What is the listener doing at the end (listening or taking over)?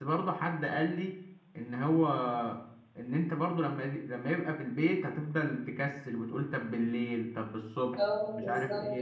taking over